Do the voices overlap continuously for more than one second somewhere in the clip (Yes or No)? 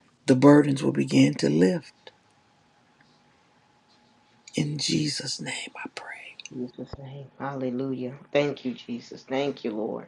No